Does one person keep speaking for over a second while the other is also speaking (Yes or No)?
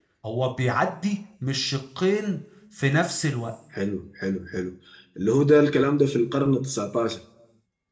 No